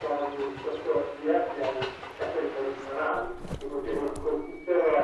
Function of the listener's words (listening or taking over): listening